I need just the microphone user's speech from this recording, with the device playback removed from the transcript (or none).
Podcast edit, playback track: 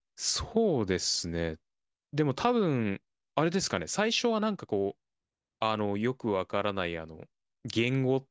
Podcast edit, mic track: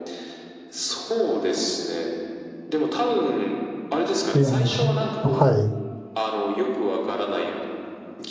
リアル。はい。